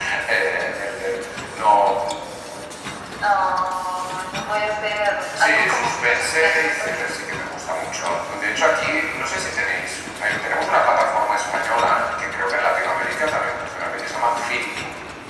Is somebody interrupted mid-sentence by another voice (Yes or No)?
Yes